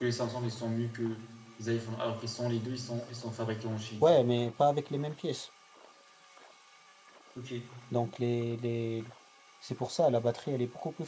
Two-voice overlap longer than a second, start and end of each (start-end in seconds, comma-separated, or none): none